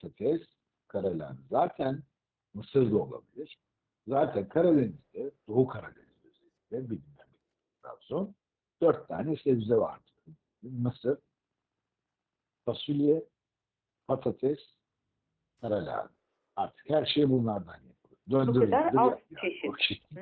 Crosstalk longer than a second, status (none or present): present